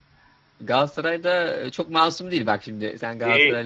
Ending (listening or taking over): taking over